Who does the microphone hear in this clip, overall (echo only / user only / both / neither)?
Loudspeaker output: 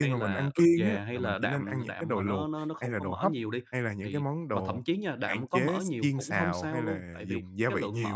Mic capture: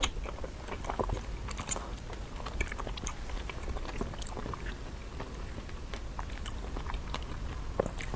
neither